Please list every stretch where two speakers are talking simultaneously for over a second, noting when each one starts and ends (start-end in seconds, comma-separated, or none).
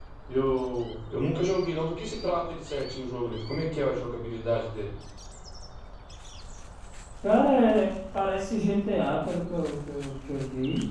none